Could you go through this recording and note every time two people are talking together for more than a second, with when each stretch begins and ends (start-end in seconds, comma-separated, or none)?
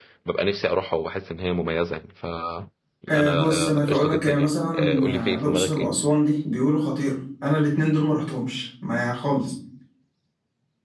3.1-5.9